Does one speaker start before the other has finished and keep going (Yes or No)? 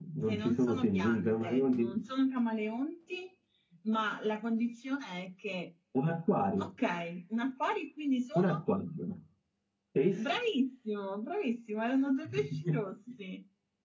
Yes